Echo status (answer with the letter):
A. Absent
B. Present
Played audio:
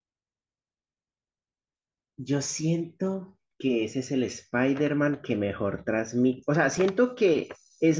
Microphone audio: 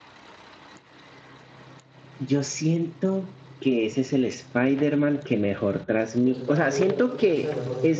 B